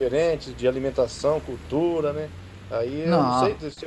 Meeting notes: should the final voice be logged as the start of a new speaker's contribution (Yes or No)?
No